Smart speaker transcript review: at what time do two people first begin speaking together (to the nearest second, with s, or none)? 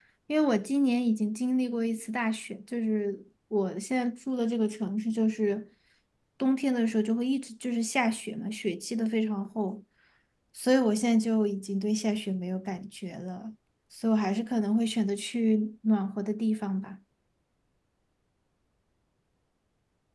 none